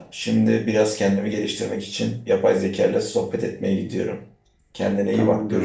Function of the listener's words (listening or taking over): taking over